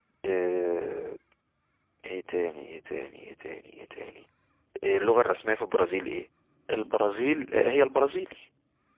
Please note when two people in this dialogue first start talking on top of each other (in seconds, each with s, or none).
none